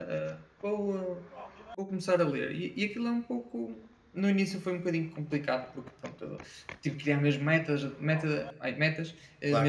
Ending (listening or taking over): listening